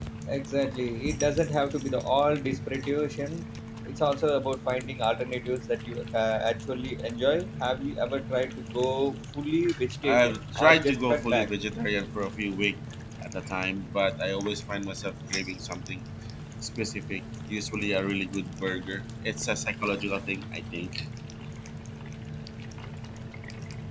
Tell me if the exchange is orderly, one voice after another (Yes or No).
No